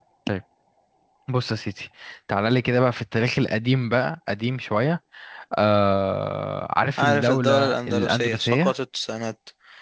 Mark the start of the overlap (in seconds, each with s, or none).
7.0 s